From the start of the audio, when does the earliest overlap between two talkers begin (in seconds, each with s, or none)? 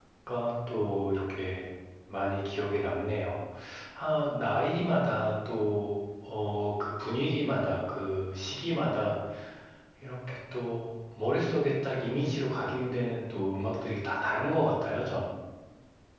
none